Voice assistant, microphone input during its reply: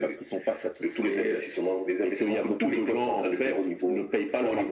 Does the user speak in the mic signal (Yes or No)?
No